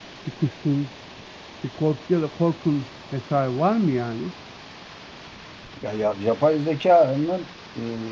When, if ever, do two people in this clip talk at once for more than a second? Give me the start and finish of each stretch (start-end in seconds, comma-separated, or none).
none